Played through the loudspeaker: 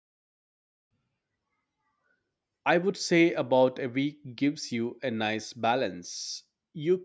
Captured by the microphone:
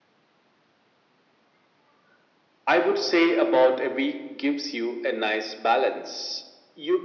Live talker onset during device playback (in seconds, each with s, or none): none